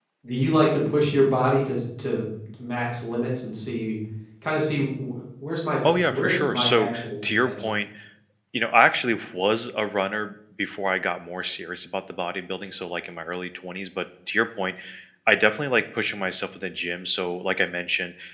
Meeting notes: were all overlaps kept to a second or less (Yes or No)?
No